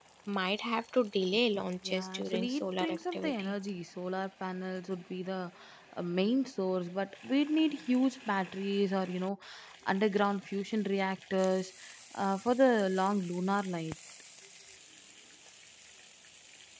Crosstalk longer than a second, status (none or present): present